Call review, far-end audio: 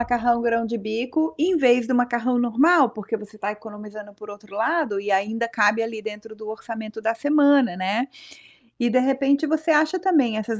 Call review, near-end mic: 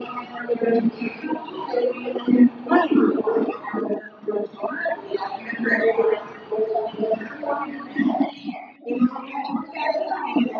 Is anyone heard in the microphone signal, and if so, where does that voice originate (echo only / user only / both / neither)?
echo only